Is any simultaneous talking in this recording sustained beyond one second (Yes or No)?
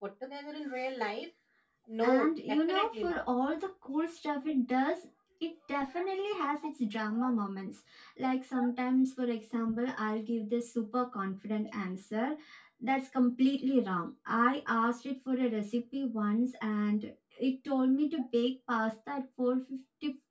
Yes